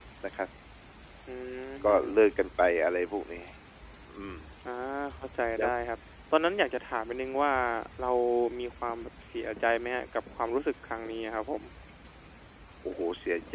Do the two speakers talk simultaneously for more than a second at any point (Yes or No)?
No